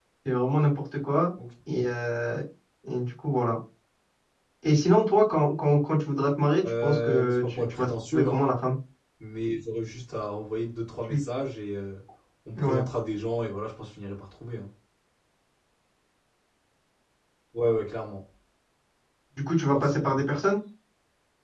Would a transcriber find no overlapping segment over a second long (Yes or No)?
No